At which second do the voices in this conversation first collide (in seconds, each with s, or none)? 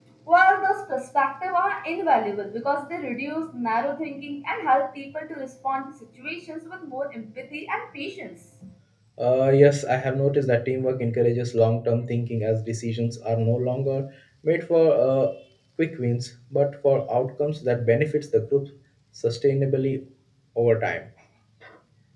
none